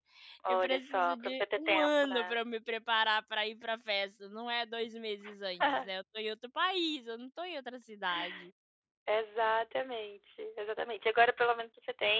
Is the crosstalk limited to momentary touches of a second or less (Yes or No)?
No